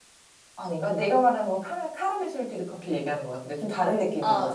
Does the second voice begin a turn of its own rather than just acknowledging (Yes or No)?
Yes